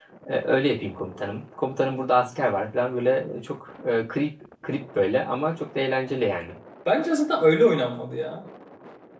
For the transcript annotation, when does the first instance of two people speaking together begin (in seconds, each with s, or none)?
none